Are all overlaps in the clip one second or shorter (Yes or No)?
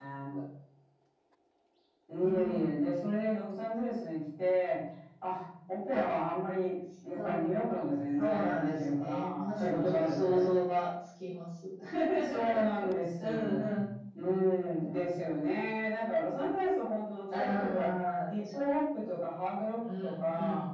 No